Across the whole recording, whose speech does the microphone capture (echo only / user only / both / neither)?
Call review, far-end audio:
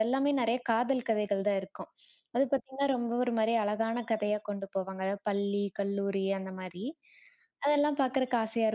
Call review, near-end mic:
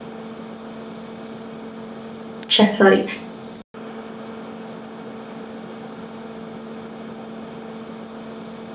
user only